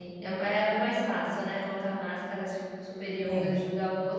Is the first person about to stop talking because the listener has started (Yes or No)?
No